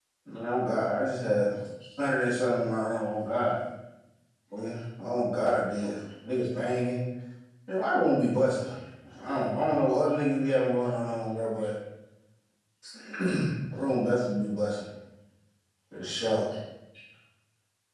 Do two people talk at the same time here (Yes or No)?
No